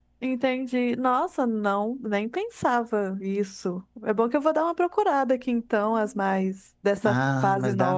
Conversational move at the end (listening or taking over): taking over